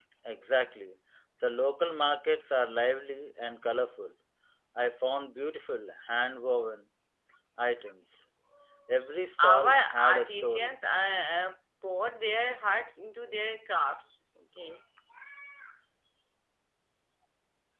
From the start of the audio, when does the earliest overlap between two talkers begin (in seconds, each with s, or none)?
9.4 s